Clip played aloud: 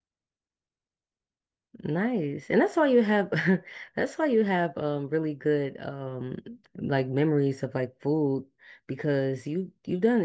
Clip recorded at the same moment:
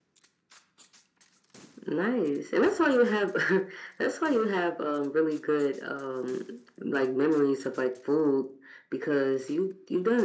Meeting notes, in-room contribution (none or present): none